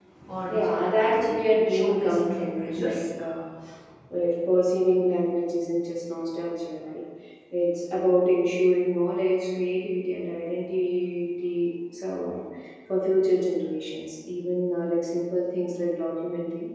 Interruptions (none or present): present